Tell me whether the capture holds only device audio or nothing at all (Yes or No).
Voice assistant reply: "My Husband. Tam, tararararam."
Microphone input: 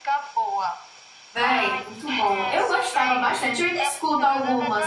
No